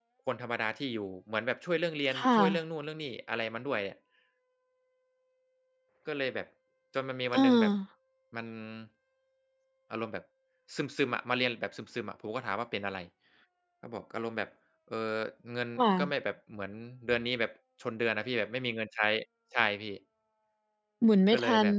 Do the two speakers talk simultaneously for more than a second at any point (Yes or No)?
No